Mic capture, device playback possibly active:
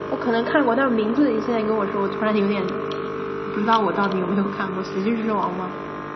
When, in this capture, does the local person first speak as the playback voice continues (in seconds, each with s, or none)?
none